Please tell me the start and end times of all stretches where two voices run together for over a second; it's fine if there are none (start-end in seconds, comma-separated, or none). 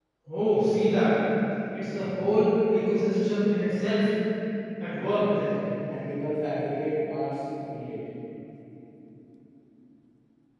none